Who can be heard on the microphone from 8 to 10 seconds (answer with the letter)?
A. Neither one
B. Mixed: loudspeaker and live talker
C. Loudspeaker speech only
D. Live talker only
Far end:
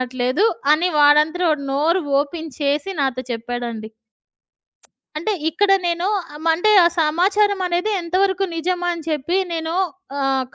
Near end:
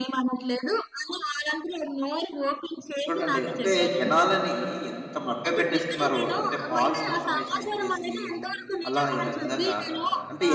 B